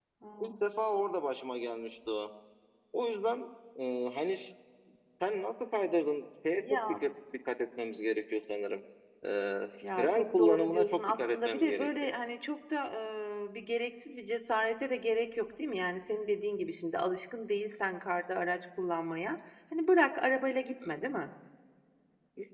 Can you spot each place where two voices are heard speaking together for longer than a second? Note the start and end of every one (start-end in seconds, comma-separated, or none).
10.0-12.1